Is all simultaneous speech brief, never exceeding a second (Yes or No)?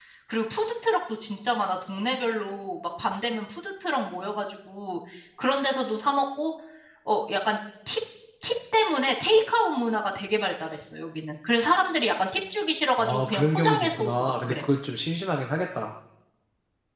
No